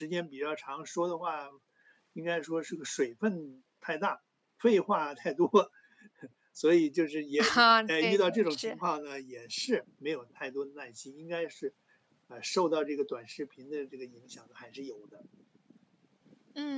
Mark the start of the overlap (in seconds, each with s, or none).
7.4 s